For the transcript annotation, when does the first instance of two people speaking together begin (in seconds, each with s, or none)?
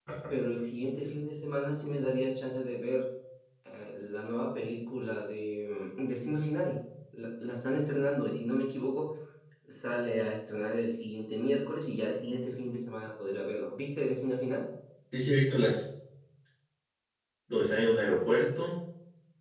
none